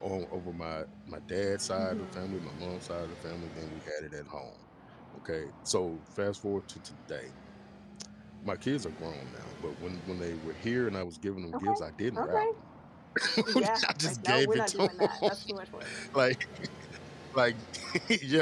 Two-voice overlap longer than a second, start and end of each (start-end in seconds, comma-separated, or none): 13.5-15.3